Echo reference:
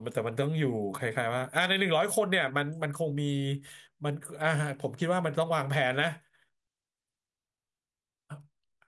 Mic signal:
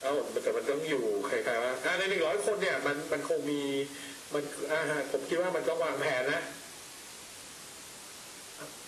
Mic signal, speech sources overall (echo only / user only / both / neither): echo only